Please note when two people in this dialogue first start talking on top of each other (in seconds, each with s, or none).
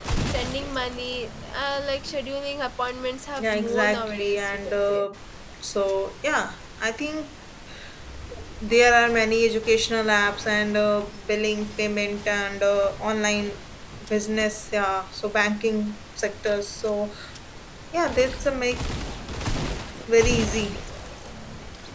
3.4 s